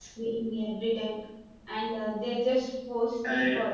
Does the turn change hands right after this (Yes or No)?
No